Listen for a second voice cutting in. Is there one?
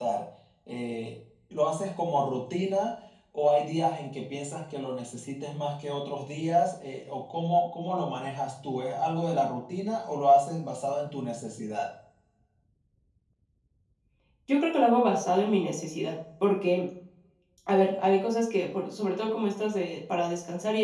No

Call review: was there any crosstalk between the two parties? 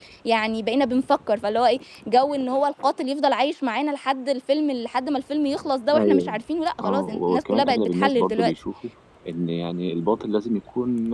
Yes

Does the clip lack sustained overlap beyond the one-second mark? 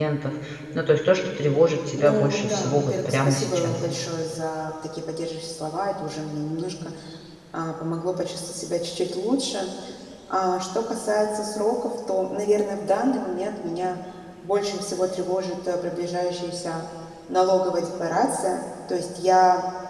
No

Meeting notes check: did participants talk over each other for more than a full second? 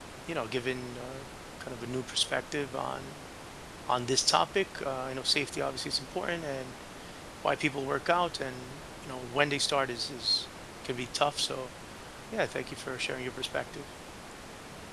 No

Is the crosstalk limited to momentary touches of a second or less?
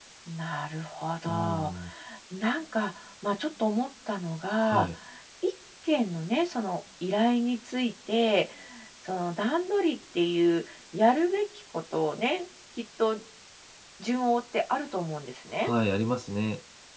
Yes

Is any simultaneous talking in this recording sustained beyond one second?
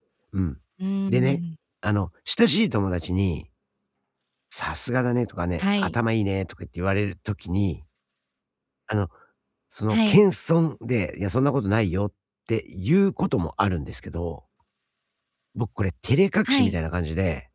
No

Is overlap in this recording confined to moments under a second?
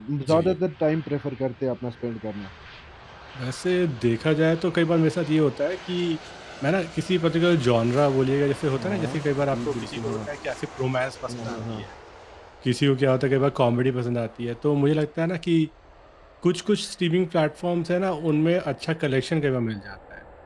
No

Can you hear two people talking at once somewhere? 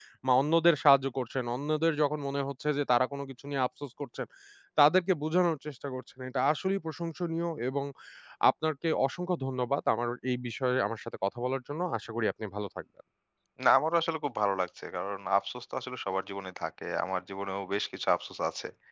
No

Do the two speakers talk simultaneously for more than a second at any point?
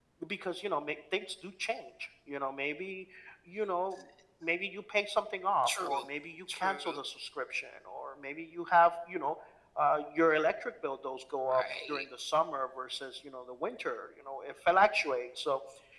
No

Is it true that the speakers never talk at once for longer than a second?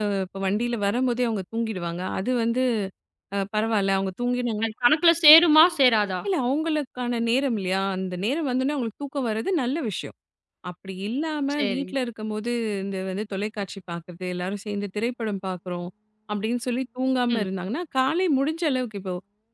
Yes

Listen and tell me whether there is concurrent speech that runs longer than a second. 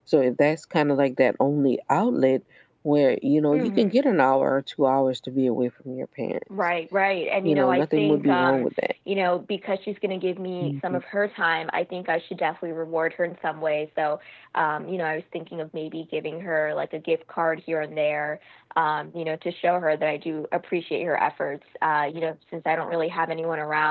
Yes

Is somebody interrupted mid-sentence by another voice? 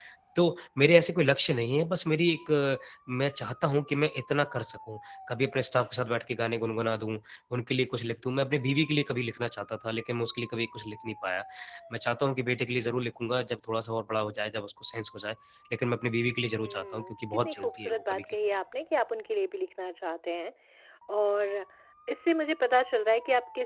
Yes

